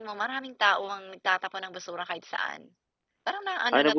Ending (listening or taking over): taking over